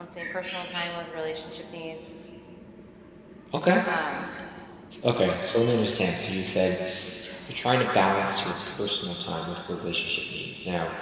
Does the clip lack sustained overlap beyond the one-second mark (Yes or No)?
Yes